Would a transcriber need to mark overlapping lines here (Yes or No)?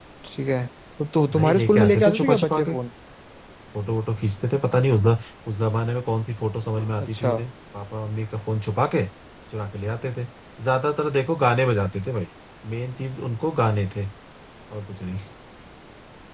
Yes